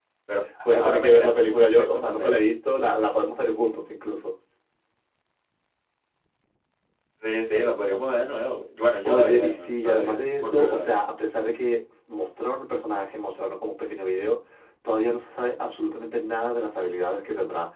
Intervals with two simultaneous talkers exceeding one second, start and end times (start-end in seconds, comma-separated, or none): 0.7-2.4, 9.0-10.9